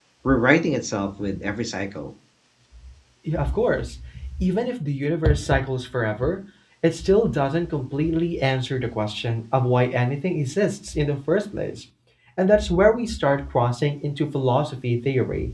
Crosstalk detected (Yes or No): No